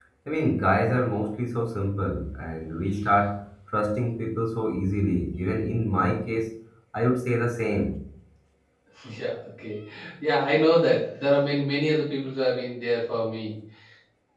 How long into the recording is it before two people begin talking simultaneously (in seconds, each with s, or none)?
none